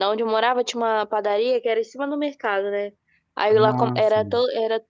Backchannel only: Yes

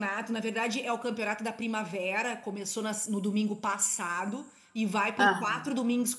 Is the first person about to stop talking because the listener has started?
No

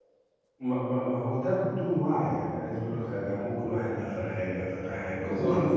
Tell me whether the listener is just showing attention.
Yes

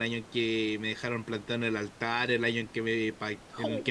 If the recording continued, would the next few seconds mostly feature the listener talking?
No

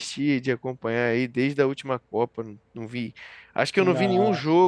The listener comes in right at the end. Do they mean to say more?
No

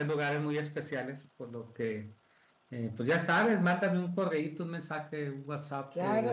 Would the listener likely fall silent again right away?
No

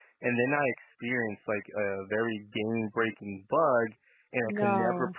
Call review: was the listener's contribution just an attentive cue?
Yes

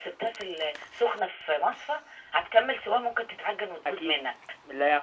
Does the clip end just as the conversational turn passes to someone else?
Yes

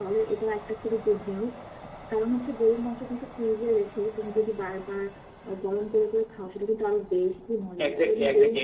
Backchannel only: No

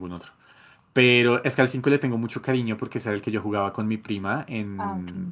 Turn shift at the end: No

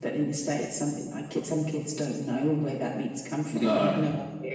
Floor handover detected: No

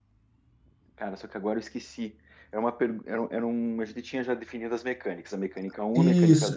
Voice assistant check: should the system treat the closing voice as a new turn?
Yes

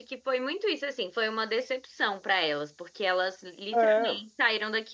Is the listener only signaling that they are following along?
Yes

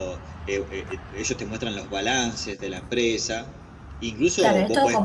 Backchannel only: No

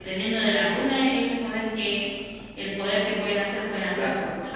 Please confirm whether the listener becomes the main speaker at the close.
Yes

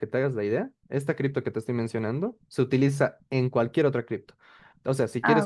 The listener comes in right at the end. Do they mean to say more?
No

